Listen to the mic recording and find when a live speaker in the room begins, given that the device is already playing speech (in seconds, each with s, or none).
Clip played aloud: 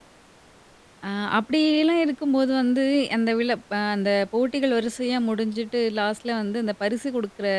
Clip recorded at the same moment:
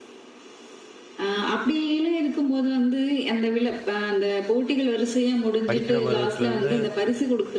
5.7 s